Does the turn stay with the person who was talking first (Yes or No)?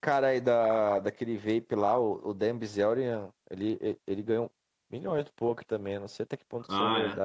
No